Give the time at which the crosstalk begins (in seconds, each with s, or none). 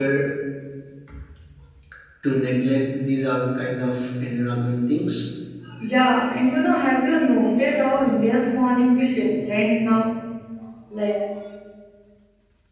none